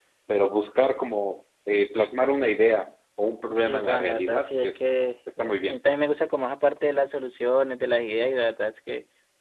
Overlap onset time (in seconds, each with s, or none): 3.5 s